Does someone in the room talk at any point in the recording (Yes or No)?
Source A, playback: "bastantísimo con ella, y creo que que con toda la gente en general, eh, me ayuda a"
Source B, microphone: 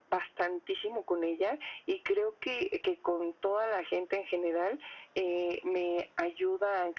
No